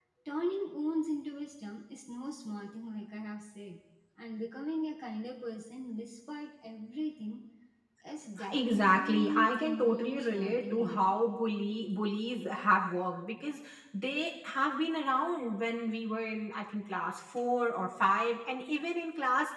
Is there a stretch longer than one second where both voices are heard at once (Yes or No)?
Yes